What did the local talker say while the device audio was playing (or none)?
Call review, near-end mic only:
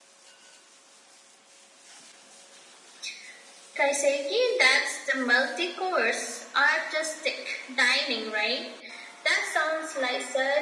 none